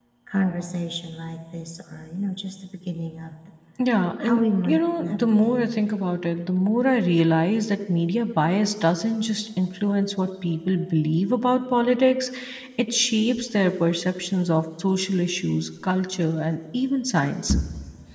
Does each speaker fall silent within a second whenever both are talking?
No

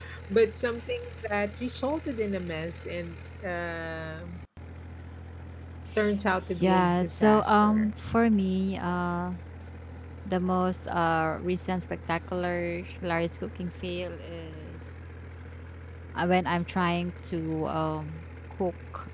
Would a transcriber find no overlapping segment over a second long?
No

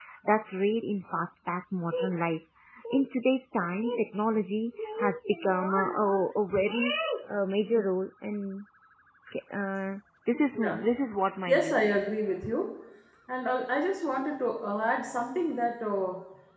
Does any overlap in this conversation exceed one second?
No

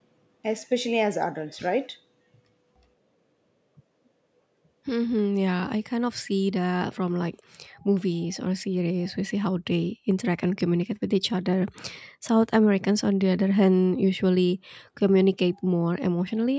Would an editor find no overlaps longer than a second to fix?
Yes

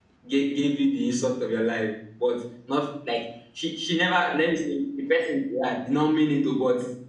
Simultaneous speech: No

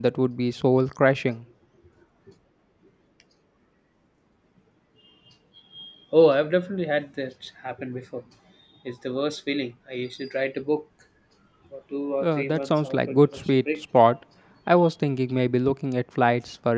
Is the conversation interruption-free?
No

